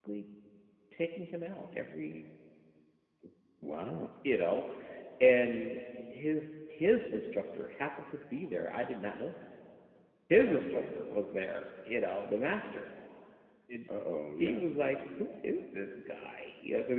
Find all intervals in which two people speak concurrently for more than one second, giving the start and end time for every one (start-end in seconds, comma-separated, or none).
none